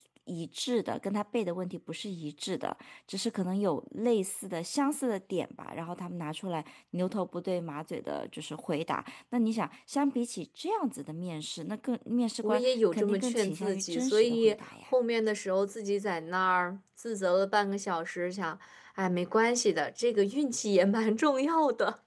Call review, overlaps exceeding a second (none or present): present